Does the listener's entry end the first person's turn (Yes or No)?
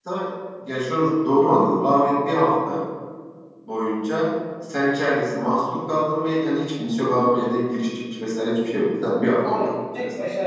Yes